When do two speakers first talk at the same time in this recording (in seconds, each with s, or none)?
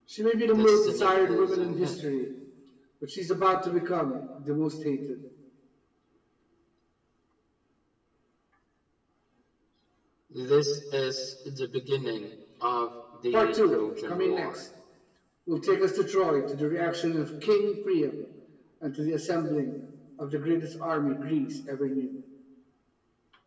0.5 s